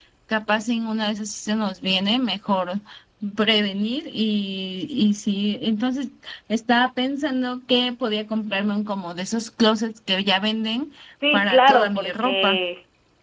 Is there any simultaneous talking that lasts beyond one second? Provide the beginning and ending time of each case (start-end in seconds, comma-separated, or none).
11.3-12.6